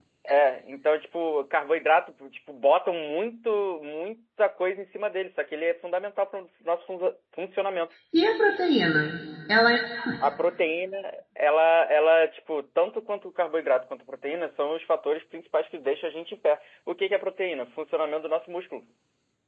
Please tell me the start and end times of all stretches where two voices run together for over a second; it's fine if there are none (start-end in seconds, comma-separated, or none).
none